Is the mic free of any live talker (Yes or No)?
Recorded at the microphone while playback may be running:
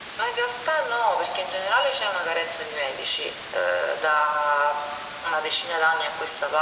Yes